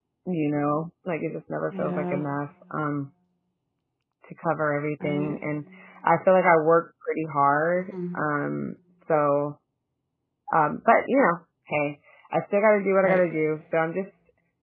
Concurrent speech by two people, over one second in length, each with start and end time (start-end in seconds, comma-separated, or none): none